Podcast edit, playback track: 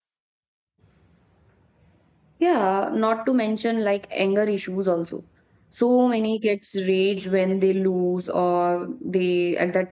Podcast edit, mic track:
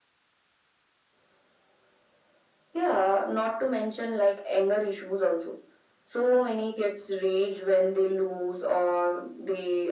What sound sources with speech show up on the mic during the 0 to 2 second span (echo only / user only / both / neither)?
neither